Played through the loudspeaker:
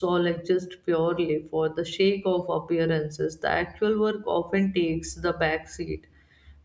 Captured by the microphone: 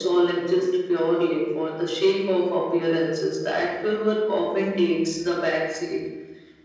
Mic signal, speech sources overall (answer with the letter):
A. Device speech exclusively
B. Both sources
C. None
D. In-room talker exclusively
A